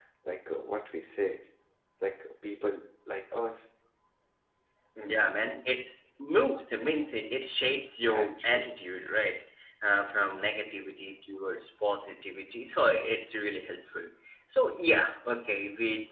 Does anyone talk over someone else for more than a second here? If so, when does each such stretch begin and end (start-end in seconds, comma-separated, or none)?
none